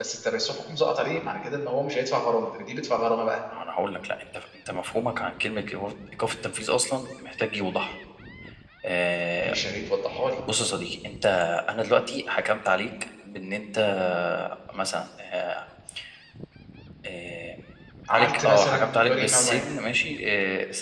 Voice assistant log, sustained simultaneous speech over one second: present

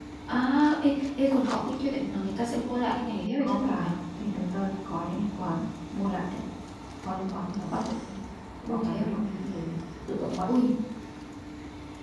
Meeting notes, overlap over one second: none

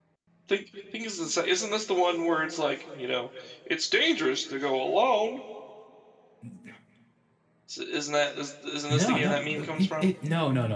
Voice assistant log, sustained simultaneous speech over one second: present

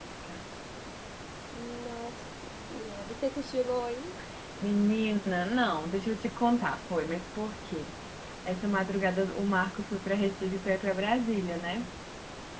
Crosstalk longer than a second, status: none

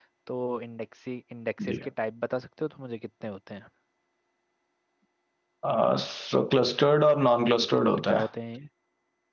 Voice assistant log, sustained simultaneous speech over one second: none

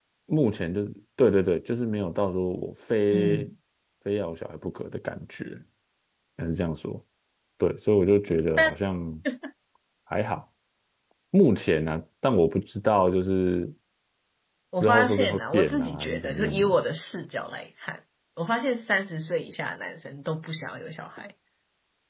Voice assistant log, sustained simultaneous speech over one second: present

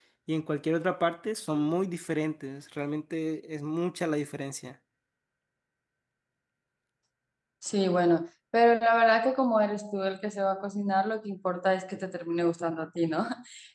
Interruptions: none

